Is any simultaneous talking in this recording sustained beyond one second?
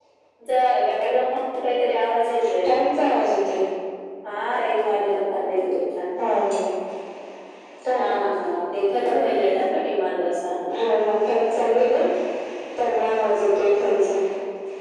No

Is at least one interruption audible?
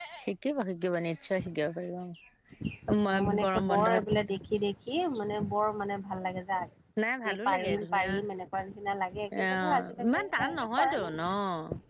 Yes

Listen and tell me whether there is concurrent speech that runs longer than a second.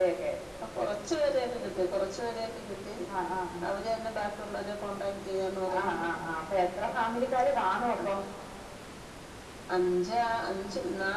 No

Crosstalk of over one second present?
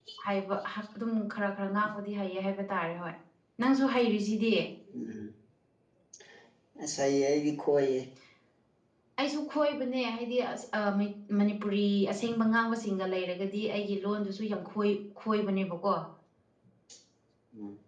No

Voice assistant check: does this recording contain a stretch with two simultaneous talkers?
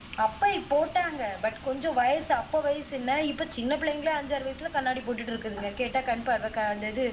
No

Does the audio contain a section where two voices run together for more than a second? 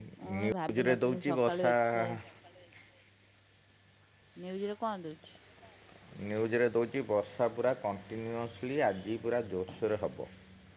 Yes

